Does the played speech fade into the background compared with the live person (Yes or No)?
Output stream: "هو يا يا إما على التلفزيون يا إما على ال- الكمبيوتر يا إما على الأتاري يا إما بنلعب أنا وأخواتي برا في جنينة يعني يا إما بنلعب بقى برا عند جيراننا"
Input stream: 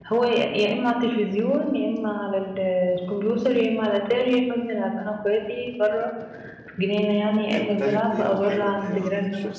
No